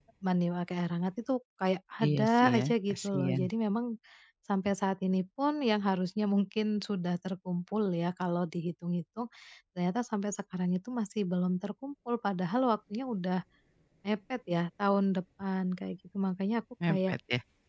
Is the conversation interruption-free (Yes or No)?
No